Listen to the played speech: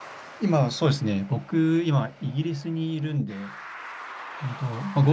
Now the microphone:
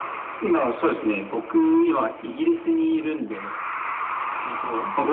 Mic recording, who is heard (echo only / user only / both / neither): echo only